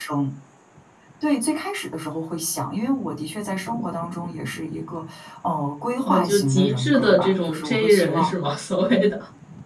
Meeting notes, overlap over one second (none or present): present